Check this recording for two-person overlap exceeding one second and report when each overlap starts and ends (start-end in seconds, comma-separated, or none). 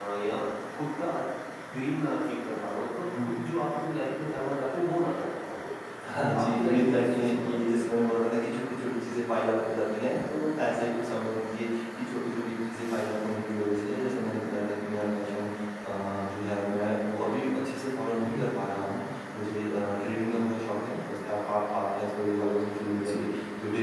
6.4-7.7